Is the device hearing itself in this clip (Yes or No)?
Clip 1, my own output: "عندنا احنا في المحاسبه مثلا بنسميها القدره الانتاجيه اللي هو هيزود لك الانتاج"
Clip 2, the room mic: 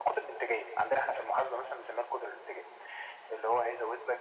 Yes